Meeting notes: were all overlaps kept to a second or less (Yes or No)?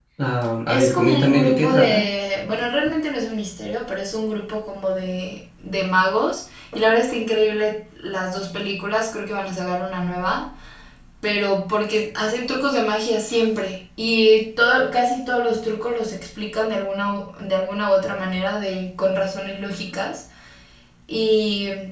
No